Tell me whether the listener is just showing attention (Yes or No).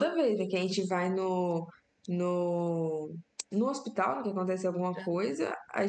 Yes